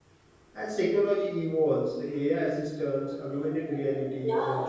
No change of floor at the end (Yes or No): Yes